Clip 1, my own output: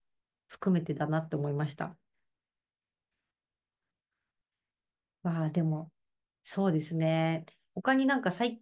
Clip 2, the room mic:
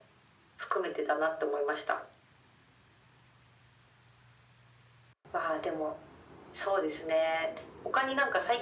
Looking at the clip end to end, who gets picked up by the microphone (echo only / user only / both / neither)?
echo only